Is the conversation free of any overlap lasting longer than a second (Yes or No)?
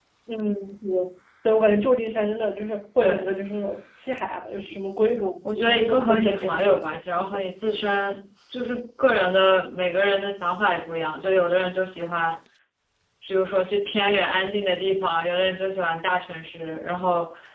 No